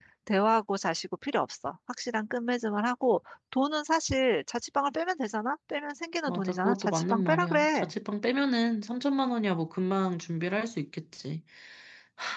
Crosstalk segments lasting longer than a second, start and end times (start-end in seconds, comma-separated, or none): 6.3-7.9